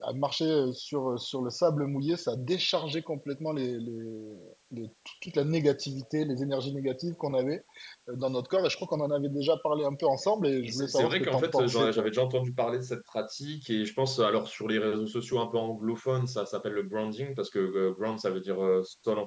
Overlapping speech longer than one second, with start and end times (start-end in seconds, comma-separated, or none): 10.7-12.1